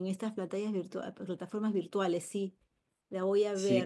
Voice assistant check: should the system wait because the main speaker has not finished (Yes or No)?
No